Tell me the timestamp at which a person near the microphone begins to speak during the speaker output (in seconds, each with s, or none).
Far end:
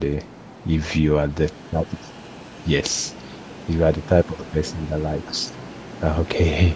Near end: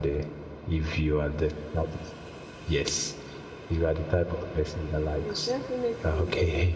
5.2 s